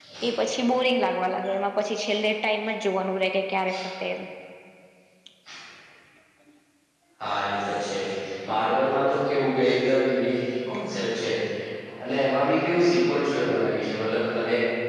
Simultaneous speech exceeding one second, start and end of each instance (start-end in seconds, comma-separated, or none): none